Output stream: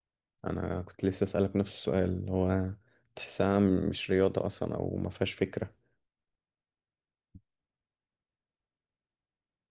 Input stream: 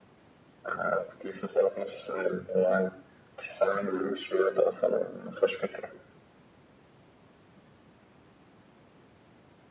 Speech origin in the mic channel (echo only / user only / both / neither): echo only